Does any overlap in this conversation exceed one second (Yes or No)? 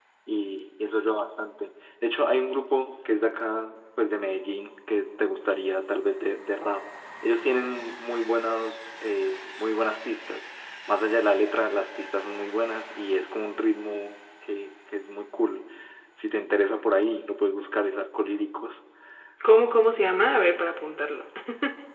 No